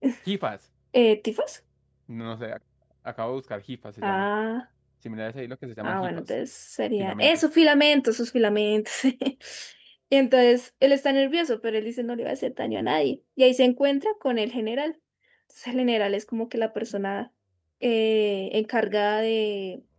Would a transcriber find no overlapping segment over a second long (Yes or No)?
Yes